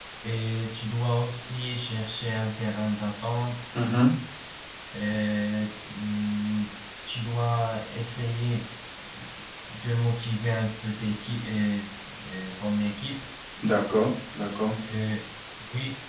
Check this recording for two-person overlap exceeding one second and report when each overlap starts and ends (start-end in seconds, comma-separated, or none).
none